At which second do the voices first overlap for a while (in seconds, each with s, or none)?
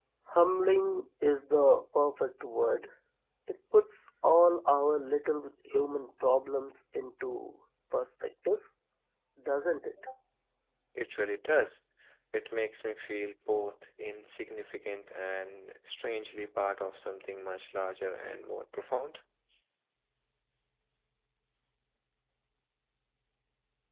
none